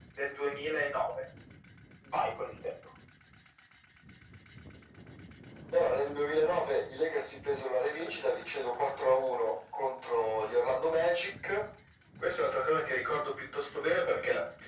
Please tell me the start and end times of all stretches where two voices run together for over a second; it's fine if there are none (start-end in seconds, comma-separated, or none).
none